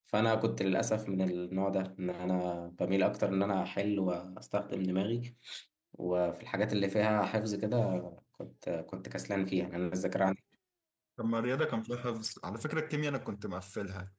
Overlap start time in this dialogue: none

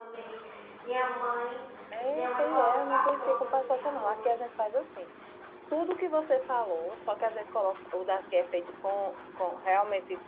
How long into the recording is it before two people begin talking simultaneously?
2.1 s

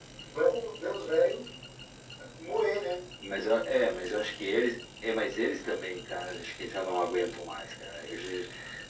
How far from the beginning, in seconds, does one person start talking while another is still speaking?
none

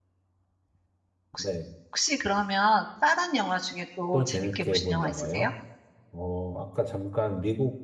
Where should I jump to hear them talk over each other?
4.1 s

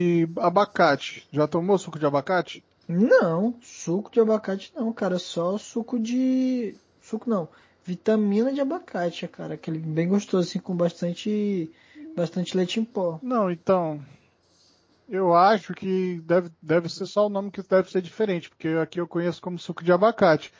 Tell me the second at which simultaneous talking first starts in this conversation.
none

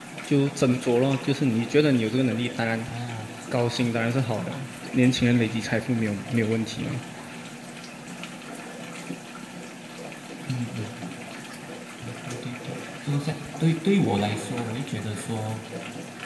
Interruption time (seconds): none

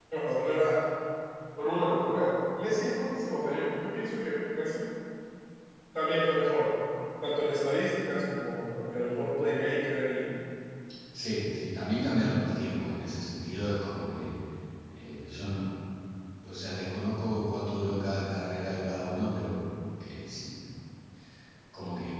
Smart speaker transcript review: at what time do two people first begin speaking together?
none

